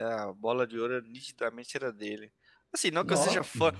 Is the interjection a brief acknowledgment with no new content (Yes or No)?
Yes